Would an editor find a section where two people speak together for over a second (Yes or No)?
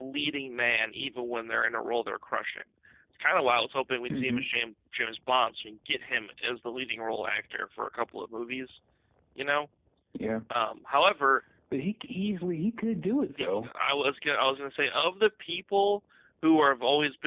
No